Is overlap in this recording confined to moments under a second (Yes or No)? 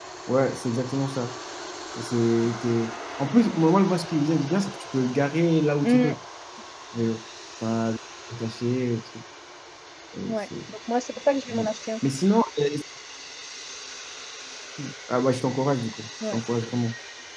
Yes